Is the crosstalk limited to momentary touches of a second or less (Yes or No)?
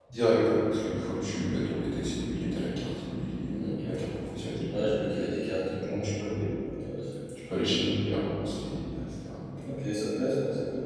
Yes